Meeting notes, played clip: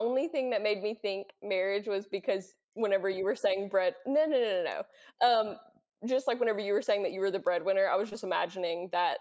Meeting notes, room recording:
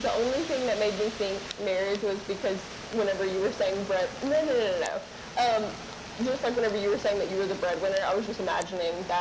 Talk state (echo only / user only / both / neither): echo only